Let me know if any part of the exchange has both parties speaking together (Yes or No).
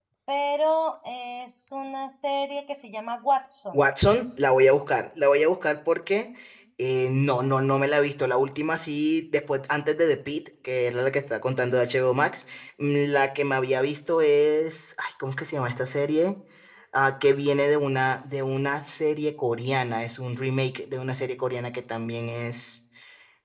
No